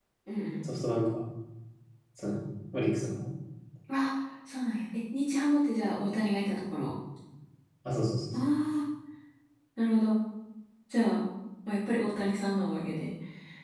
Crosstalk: none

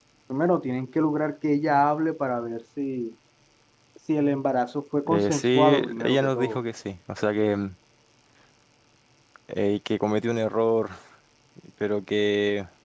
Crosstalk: present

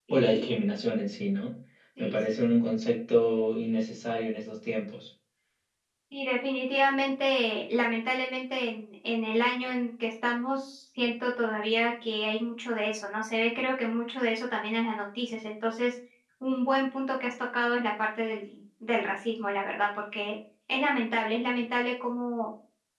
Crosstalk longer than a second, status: none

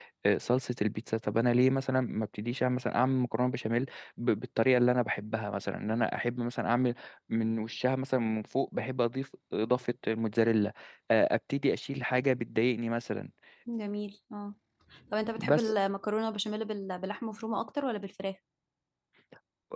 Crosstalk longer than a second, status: none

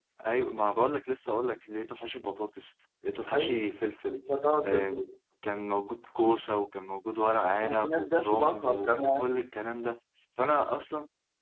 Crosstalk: present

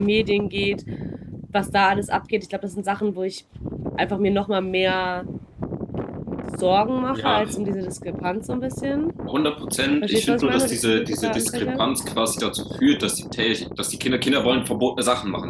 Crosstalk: present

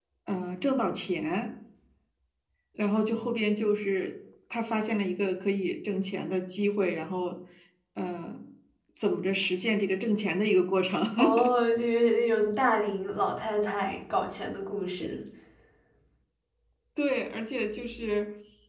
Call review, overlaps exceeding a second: none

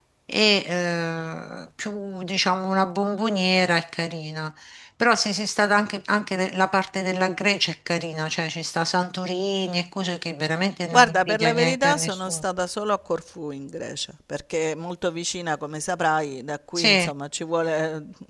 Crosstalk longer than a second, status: present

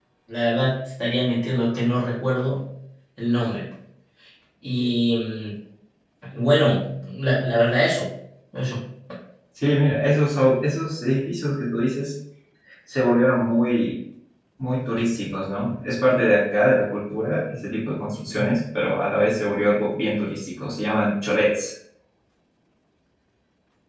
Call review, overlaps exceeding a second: none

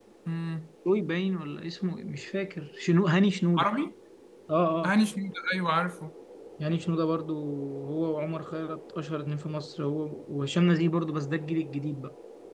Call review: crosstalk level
none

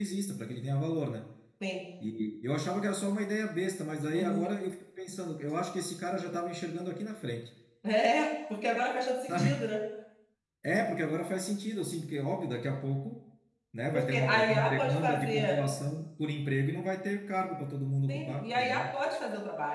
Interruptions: present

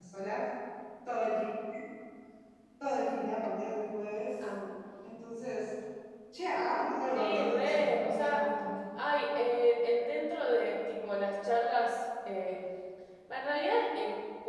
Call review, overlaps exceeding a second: present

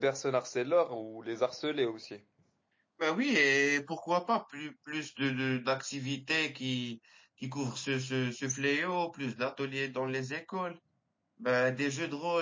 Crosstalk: none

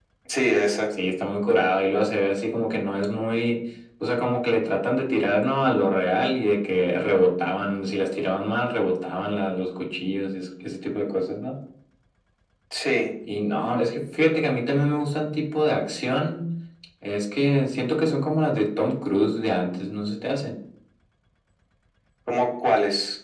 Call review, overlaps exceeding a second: none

